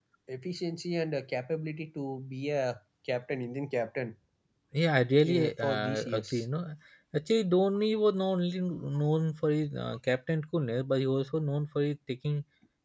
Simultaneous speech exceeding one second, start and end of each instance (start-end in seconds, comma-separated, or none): 5.2-6.4